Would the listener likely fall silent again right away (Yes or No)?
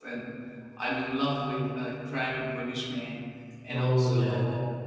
Yes